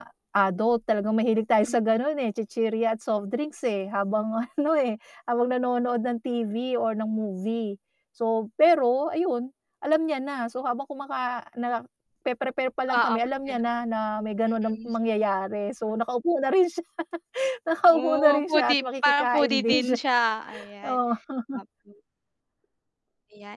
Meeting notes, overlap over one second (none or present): present